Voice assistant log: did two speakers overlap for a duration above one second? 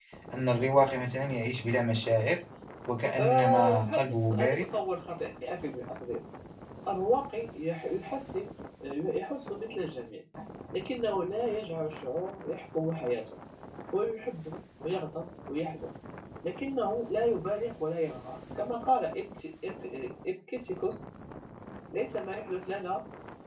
Yes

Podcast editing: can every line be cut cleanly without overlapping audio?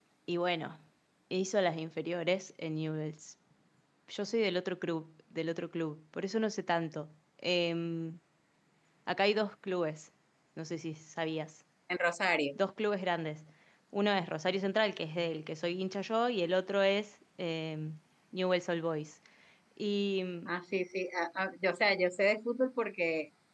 Yes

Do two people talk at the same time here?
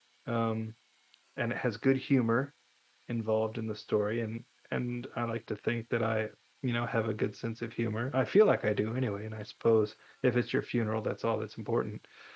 No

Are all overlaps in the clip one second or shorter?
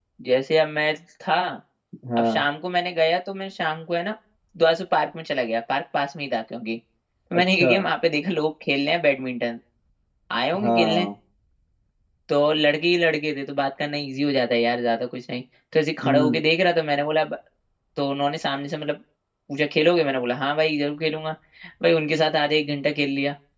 Yes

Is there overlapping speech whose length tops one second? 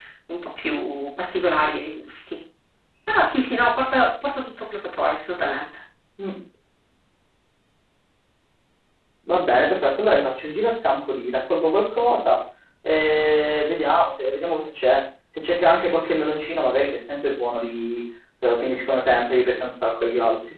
No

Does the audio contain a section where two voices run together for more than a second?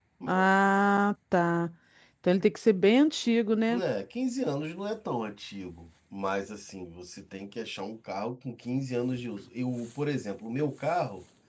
No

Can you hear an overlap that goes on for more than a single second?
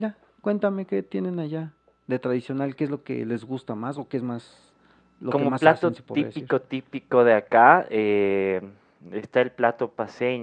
Yes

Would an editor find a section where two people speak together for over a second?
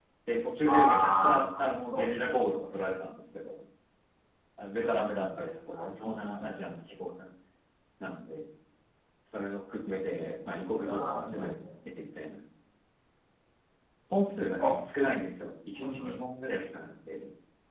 Yes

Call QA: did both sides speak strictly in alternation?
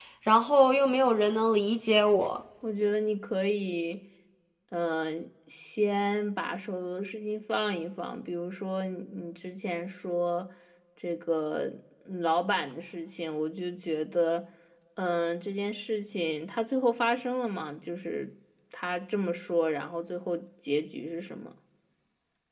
Yes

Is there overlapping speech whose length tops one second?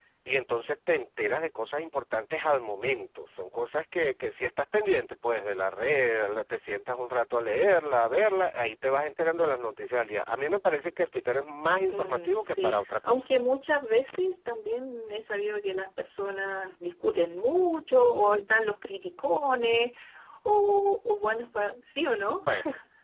Yes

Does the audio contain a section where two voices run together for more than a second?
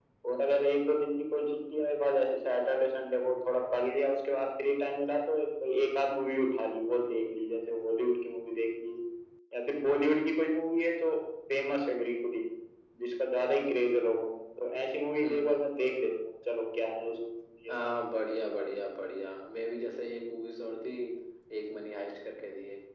No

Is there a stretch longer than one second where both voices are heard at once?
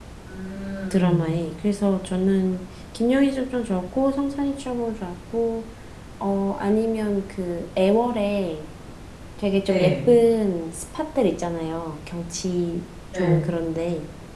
No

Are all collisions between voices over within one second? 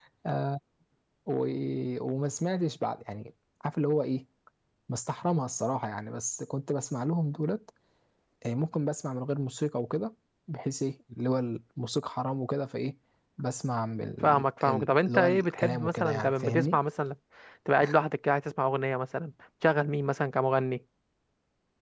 No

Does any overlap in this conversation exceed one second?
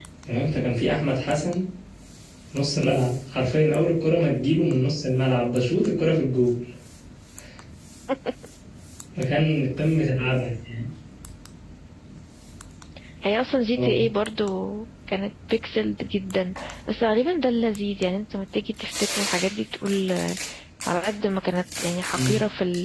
No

